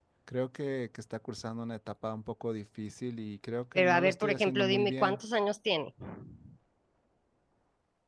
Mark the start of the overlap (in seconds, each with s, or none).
3.8 s